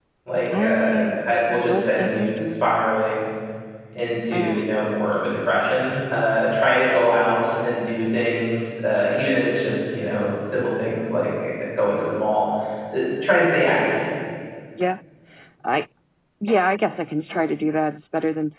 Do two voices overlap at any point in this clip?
Yes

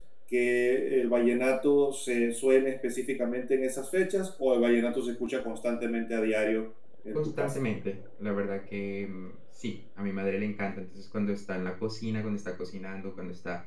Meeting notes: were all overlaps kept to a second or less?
Yes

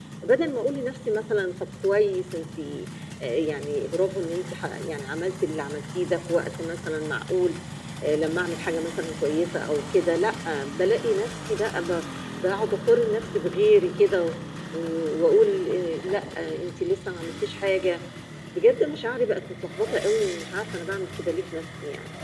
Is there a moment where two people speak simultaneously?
No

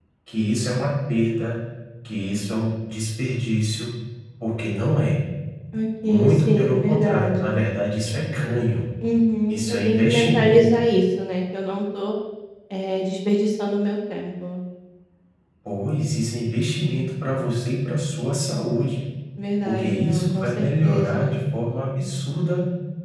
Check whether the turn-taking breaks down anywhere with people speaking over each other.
Yes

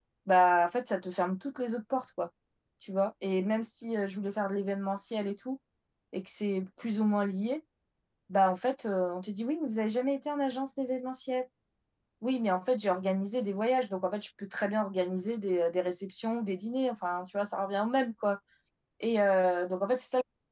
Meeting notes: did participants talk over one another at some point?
No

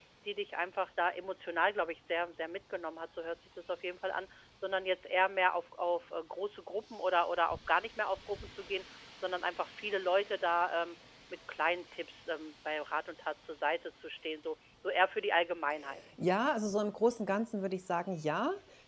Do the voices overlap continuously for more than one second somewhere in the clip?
No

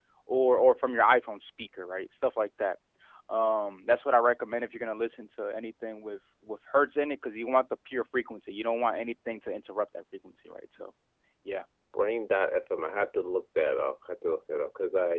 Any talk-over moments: No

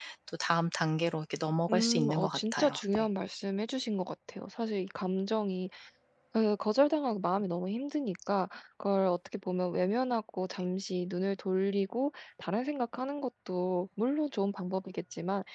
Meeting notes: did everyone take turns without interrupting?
No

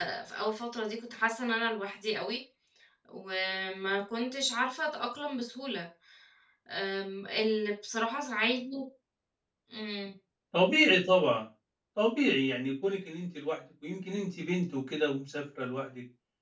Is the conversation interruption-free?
Yes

